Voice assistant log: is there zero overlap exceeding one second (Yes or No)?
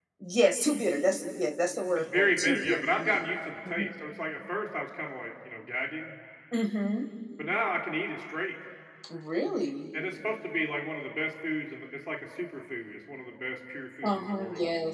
No